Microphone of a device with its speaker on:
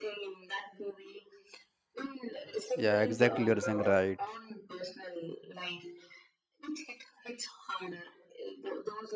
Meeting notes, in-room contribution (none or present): present